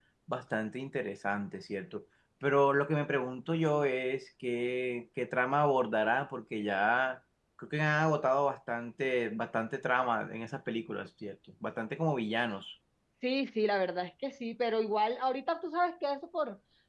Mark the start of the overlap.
none

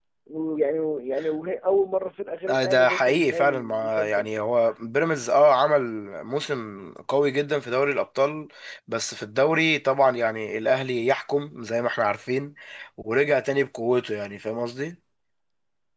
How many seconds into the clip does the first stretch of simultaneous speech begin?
2.5 s

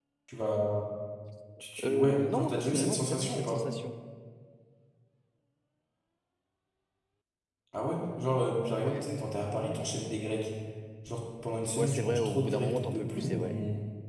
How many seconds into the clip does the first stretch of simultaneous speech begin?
1.8 s

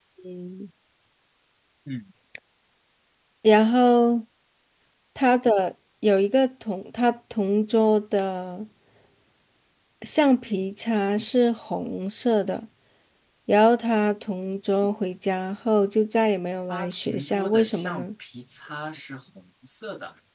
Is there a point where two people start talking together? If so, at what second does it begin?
16.7 s

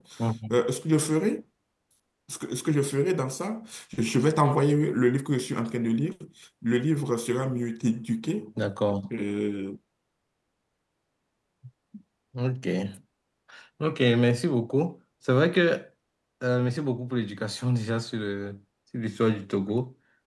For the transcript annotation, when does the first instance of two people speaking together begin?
none

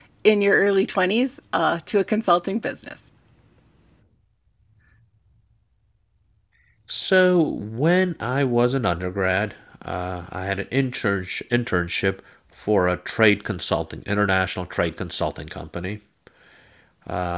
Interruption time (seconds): none

